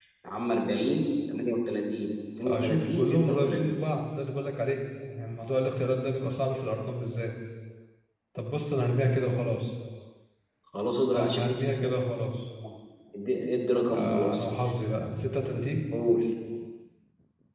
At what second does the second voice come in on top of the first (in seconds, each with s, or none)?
2.5 s